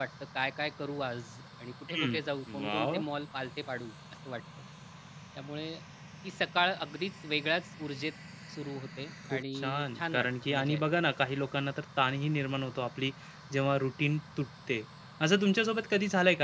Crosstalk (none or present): present